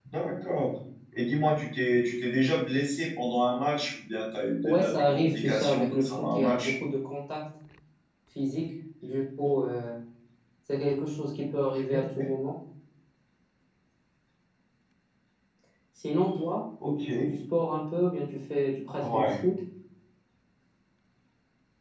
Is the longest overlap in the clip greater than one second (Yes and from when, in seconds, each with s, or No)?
Yes, from 4.6 s